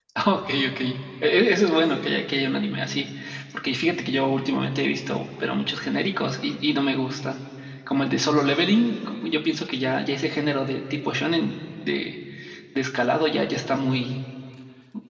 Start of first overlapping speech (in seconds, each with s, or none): none